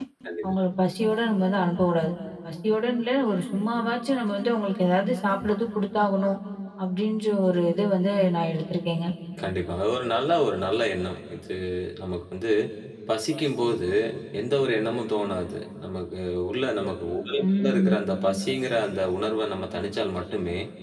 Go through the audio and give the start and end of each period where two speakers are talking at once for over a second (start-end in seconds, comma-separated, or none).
none